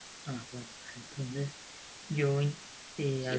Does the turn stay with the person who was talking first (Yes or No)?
No